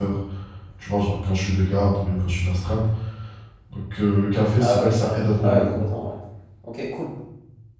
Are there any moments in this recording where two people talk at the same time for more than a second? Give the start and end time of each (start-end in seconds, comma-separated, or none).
4.6-5.8